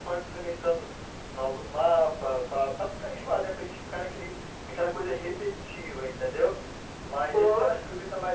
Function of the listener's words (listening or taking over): listening